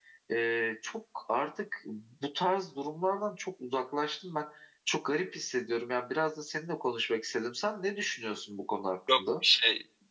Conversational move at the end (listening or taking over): taking over